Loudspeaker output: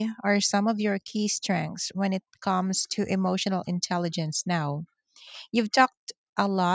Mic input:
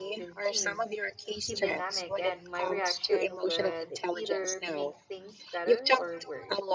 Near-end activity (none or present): present